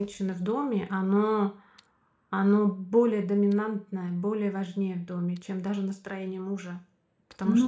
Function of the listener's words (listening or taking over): taking over